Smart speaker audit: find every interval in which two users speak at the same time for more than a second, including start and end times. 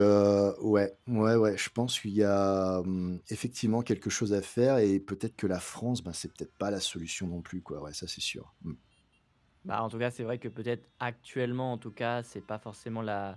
none

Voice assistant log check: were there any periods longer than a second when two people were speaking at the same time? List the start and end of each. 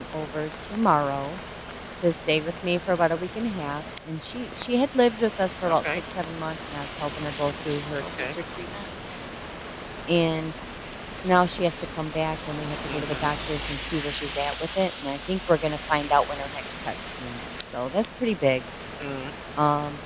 none

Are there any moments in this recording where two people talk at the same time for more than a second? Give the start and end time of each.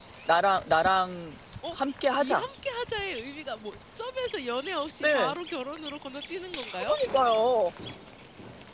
none

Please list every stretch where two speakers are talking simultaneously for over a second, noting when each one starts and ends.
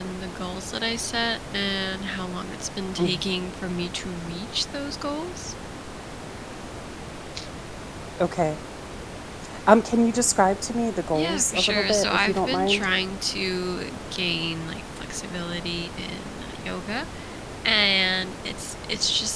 11.1-12.8

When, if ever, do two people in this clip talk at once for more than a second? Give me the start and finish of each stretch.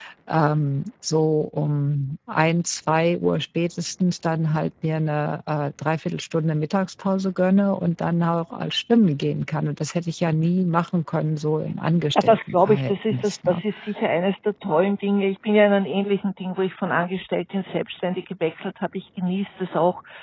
12.2-13.6

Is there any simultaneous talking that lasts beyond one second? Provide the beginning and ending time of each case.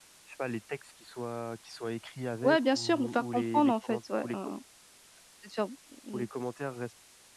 2.4-4.5

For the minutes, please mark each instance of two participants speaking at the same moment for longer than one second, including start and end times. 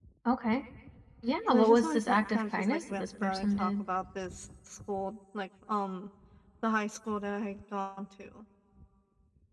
1.5-3.8

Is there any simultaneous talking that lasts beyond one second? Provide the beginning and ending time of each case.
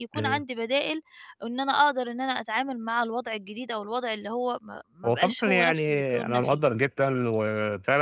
5.0-6.6

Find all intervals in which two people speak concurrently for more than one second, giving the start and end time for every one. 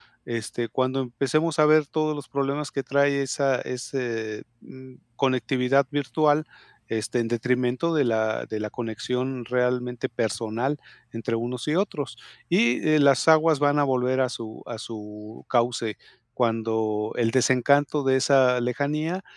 none

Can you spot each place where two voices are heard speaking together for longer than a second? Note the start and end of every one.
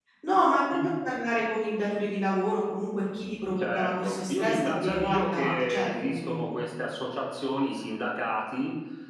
3.6-6.6

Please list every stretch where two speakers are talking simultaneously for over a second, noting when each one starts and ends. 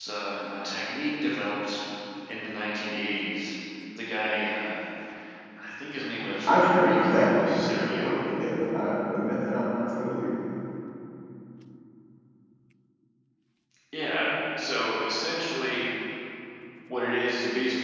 6.5-8.3

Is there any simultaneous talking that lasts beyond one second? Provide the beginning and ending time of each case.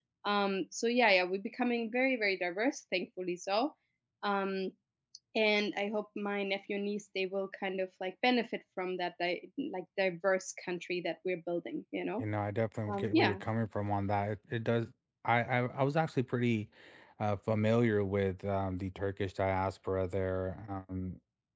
none

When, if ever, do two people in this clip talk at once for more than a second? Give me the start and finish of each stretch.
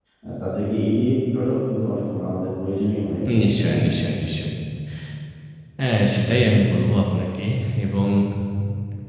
none

